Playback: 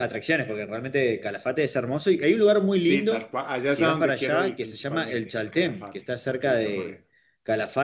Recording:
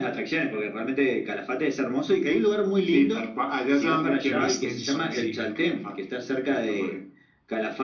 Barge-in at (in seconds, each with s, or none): 4.3 s